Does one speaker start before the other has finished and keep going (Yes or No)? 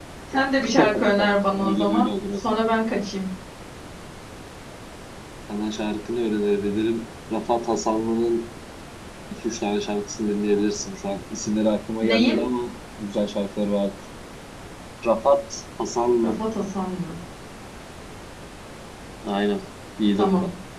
Yes